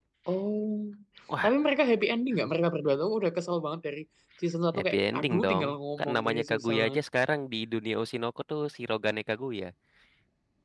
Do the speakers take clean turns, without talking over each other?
No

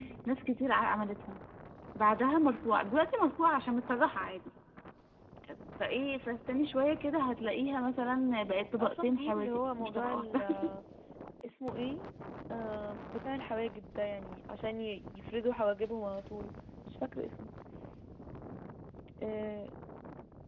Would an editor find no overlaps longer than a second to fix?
No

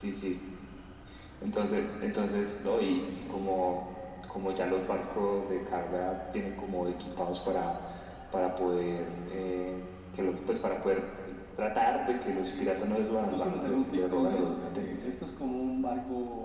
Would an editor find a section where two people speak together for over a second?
Yes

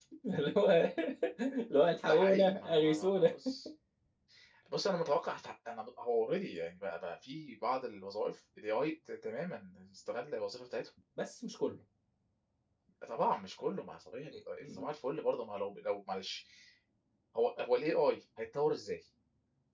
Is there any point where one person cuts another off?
Yes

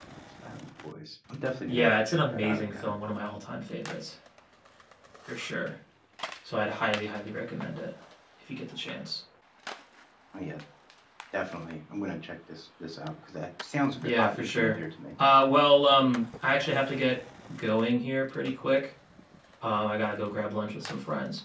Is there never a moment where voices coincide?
No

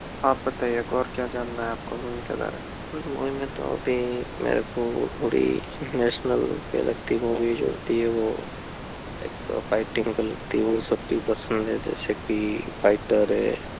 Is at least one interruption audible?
No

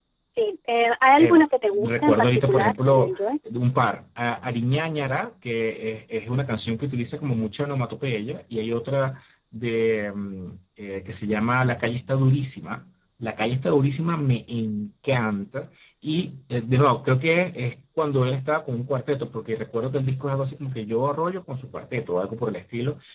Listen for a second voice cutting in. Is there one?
Yes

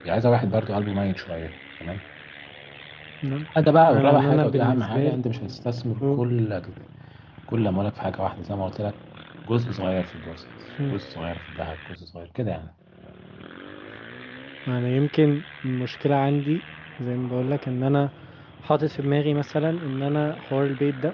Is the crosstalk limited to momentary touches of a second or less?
No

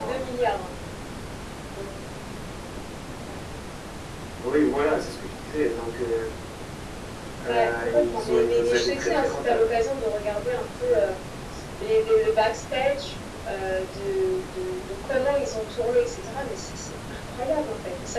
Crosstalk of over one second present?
Yes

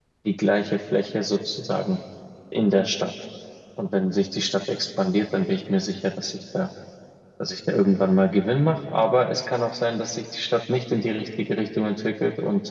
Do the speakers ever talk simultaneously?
No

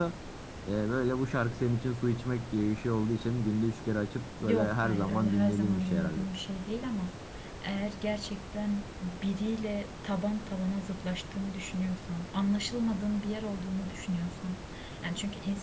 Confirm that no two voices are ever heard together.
No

